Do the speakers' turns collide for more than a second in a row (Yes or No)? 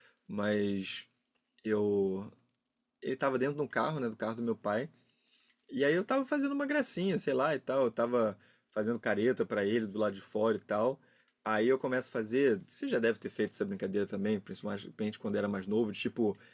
No